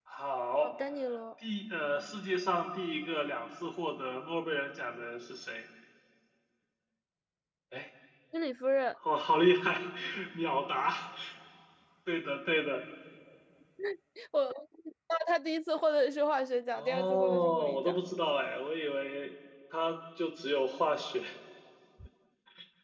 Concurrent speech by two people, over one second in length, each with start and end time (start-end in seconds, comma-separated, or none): 16.8-18.0